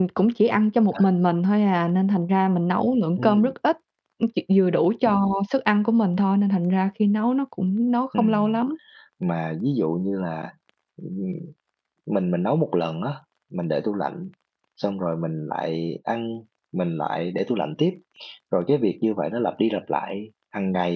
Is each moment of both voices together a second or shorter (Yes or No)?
Yes